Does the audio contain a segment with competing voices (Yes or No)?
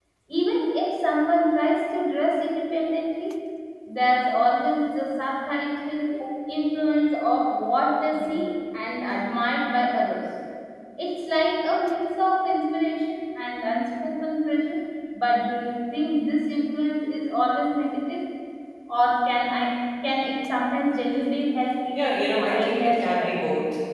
Yes